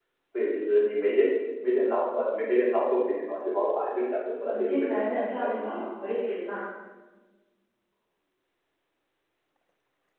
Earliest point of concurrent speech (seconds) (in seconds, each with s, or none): 4.5 s